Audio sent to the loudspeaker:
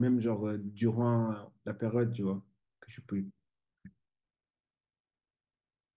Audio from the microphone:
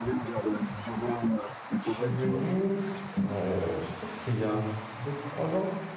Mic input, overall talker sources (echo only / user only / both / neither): both